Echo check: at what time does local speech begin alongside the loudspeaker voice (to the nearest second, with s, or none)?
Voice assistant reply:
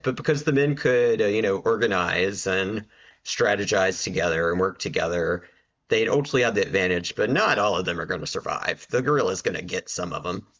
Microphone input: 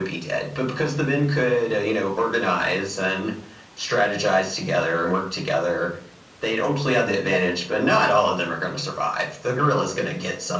none